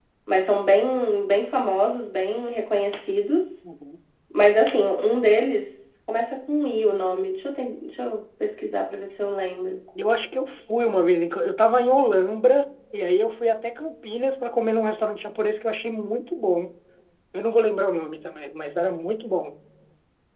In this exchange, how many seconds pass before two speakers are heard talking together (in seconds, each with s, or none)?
none